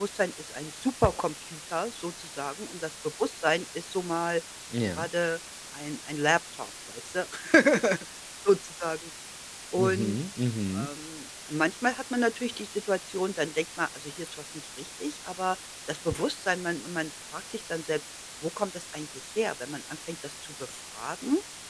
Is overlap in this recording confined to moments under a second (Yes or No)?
Yes